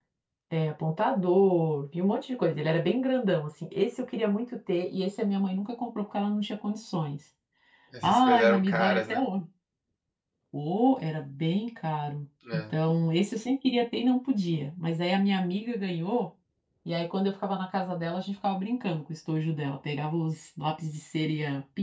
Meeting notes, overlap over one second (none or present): present